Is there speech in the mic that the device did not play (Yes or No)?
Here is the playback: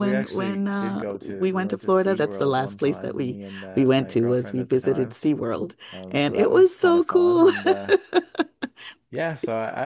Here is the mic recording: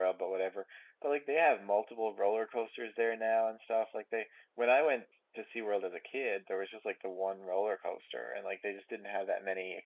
Yes